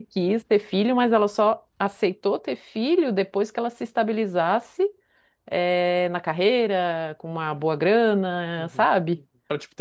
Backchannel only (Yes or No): No